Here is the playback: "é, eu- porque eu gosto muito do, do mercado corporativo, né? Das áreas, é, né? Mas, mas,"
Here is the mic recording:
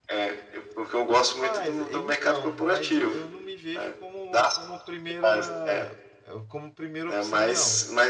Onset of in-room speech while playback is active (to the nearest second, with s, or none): 1 s